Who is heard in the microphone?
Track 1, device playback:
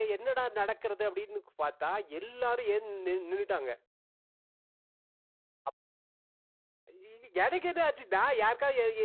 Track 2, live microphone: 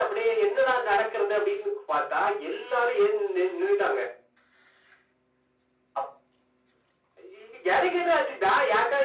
echo only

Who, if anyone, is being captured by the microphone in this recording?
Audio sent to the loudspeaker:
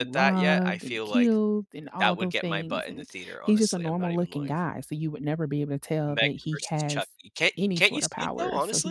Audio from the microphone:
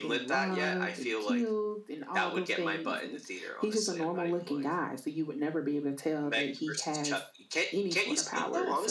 echo only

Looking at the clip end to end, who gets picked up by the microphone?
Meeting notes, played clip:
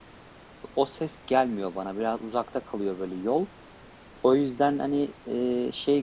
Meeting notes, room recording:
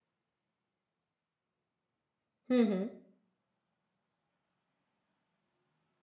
user only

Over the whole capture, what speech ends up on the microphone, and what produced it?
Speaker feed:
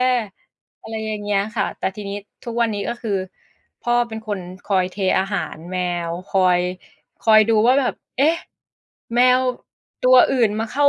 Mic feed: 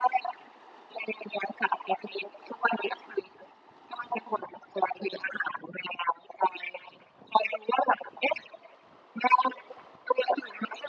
echo only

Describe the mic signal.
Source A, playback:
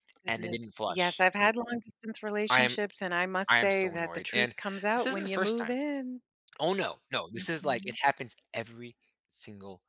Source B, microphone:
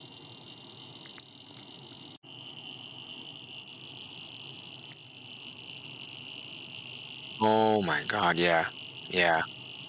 user only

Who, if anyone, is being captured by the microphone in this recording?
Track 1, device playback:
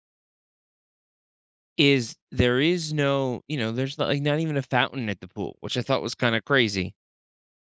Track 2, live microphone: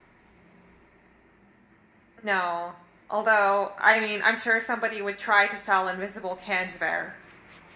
user only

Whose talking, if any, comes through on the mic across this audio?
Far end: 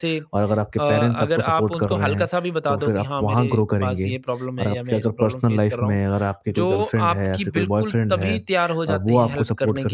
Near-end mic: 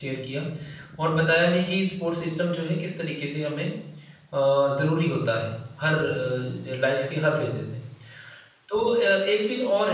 user only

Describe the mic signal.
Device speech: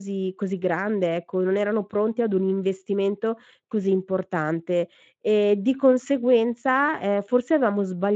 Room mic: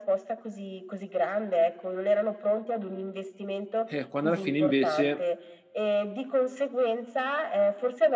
both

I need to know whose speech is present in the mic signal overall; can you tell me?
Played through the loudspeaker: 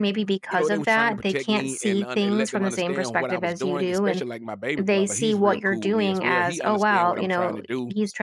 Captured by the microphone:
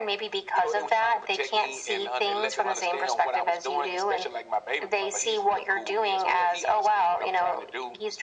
echo only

